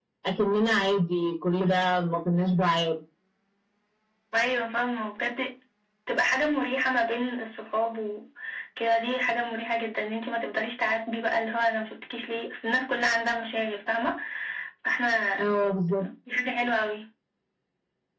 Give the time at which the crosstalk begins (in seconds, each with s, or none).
none